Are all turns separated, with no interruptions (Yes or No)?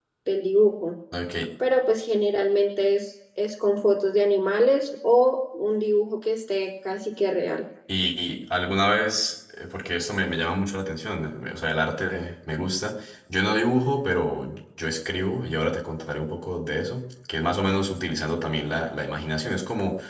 Yes